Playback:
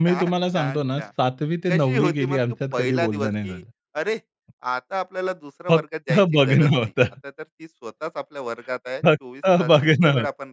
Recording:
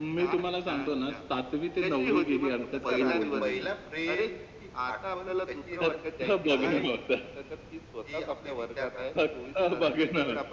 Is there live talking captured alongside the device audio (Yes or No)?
Yes